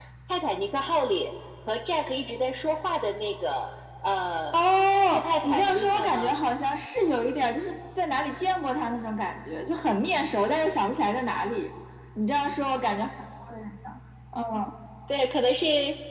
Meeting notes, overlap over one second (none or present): present